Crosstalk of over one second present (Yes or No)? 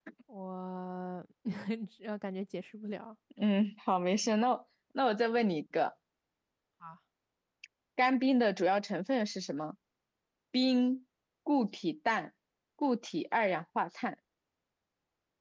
No